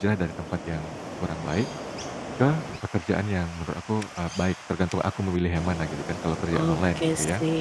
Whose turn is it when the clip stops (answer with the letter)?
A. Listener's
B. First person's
A